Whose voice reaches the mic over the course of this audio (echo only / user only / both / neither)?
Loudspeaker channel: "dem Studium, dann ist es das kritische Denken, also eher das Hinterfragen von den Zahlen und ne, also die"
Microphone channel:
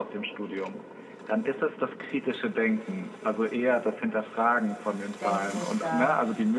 both